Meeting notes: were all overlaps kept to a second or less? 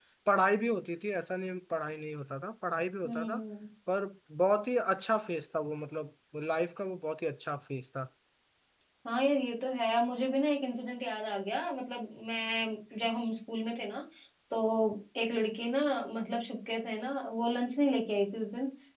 Yes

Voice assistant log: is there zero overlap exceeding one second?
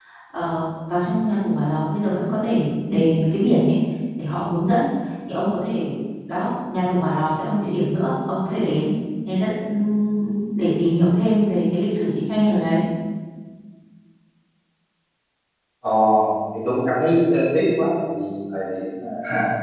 Yes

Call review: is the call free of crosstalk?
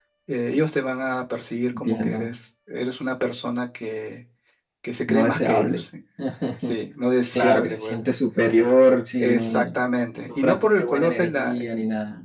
No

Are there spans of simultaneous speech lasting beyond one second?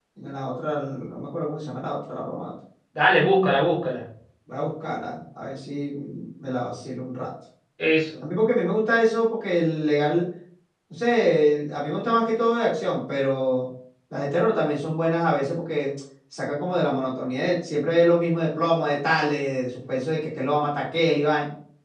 No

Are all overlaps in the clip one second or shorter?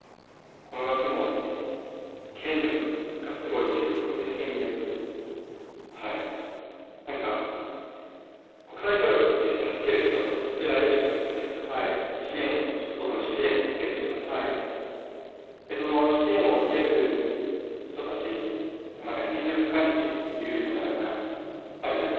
Yes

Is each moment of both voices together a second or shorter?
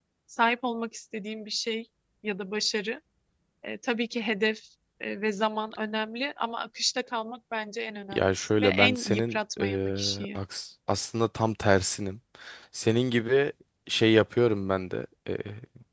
No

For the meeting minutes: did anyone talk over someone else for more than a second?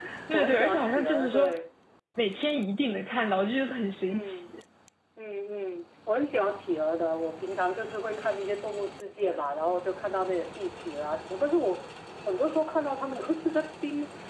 Yes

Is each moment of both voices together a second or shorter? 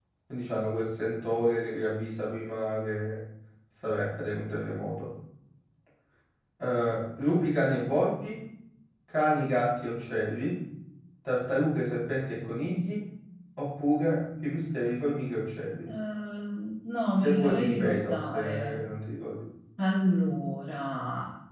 No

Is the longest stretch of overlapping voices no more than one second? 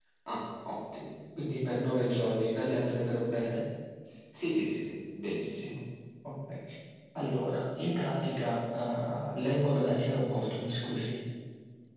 Yes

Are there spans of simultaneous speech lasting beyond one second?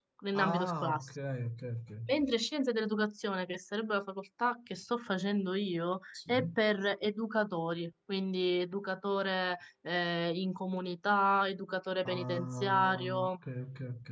Yes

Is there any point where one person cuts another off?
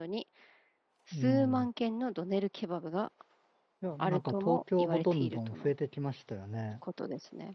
Yes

